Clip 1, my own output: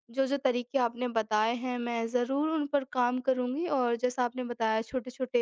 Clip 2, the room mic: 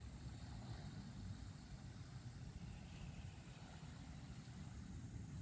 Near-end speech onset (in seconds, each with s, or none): none